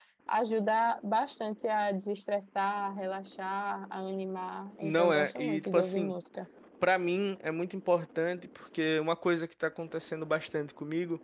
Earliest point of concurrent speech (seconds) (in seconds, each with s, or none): 4.8 s